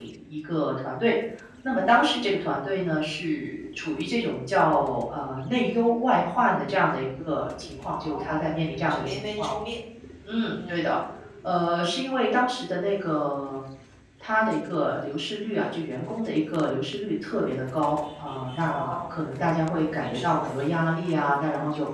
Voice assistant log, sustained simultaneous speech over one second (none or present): present